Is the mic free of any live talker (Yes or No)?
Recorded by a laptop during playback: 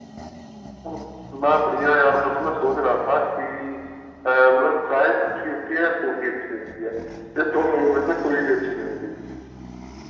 Yes